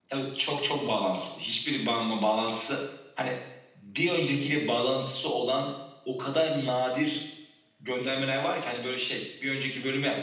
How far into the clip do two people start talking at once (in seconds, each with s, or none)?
none